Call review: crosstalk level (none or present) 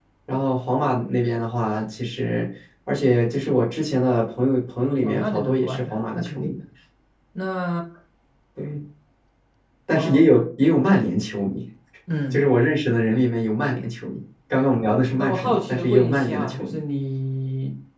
present